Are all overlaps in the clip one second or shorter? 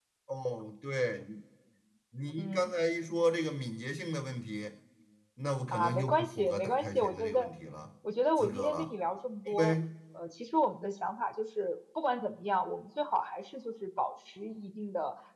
No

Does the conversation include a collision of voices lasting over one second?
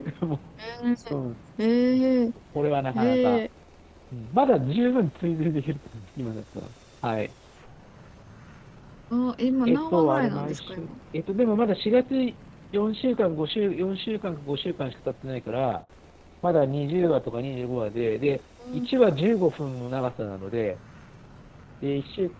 Yes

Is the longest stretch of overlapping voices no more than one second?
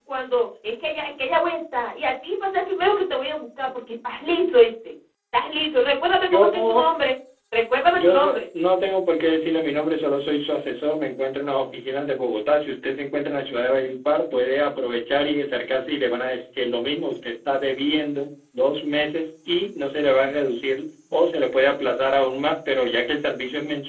Yes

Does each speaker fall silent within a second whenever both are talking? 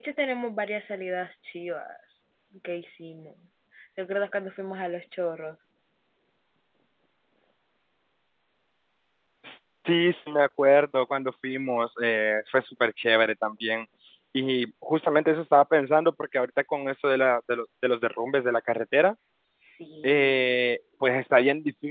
Yes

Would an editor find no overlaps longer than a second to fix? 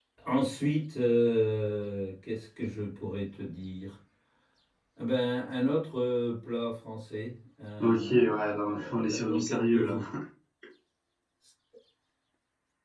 No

